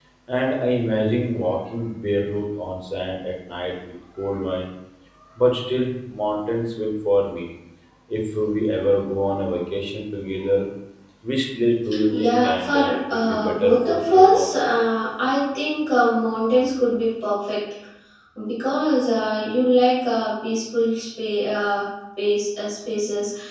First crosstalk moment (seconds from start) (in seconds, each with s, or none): 12.2 s